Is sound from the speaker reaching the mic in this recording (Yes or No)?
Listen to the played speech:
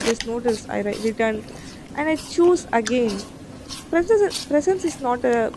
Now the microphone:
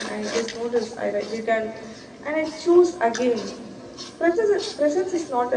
Yes